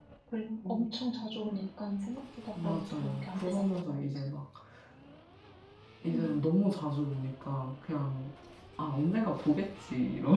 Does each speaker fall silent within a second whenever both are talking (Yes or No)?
No